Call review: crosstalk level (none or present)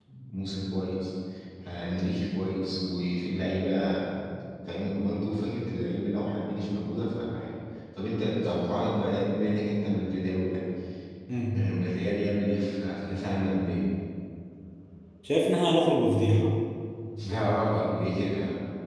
none